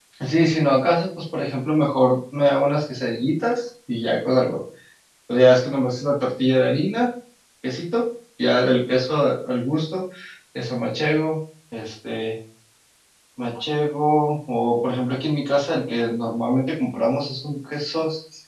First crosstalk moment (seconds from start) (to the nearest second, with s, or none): none